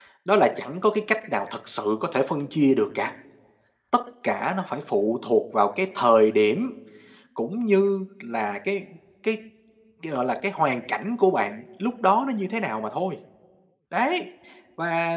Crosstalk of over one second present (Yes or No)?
No